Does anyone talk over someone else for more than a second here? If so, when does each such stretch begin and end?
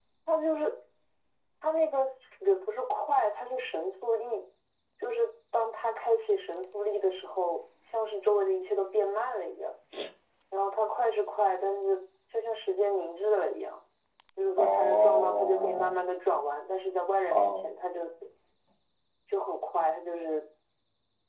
14.6-16.0

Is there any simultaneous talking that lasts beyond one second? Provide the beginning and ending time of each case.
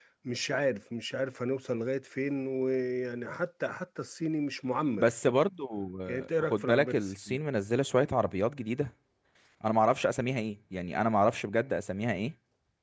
6.1-7.4

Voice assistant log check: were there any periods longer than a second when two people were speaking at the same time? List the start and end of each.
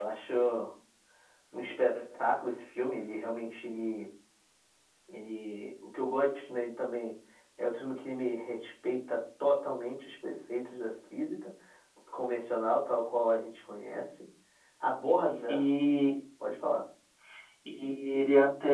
none

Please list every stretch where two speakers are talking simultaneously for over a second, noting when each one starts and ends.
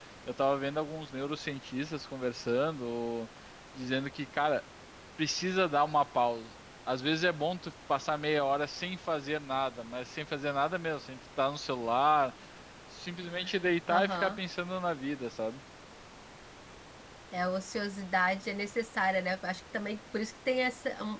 none

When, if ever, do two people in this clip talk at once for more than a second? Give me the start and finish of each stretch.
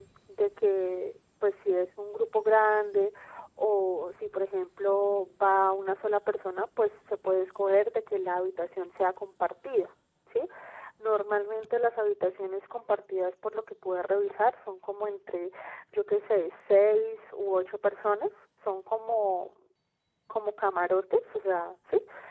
none

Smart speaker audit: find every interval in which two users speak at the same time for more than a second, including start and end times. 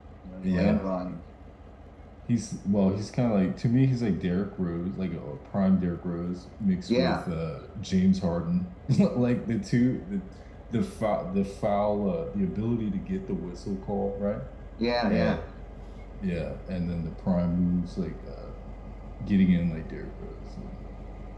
none

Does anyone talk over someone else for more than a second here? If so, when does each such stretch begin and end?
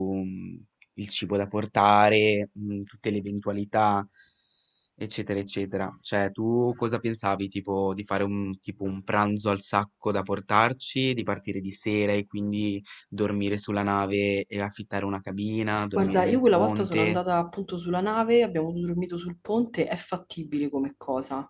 16.0-17.2

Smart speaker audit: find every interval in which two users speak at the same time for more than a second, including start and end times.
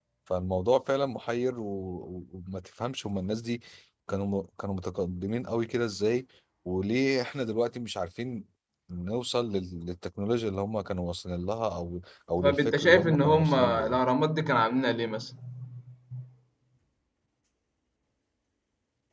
12.4-14.0

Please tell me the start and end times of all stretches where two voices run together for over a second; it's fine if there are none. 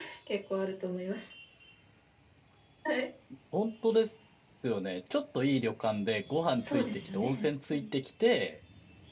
6.6-7.8

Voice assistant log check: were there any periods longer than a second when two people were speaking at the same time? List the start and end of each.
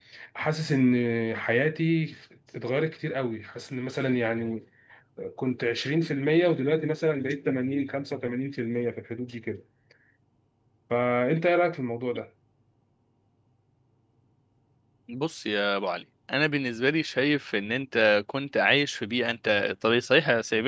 none

